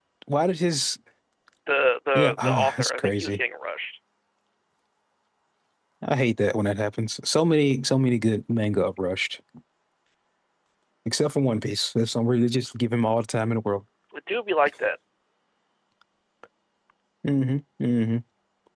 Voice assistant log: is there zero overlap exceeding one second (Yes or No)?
No